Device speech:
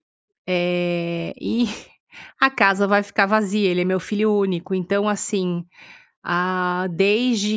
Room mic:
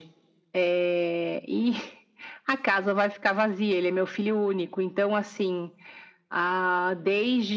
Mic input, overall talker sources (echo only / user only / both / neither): echo only